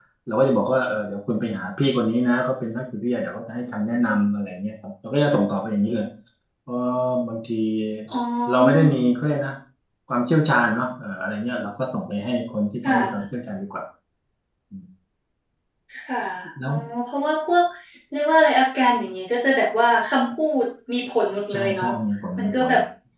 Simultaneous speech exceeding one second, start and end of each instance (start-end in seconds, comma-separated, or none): none